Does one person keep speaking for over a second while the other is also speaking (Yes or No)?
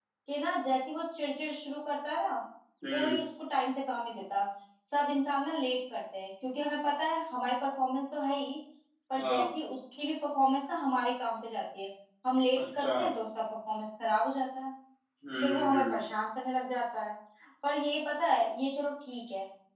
No